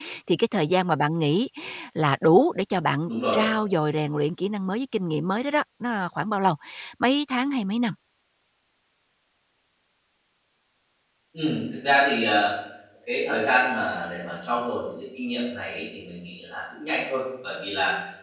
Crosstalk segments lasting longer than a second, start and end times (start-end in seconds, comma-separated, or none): none